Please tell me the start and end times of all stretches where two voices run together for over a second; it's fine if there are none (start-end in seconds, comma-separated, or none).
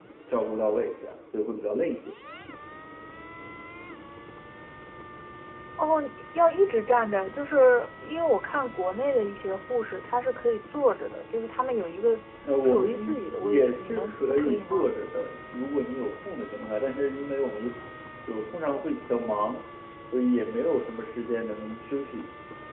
12.6-14.9